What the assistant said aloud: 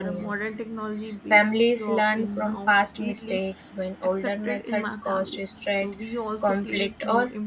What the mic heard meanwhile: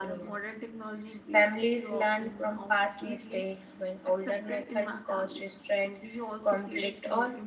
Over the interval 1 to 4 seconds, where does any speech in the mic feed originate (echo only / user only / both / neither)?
echo only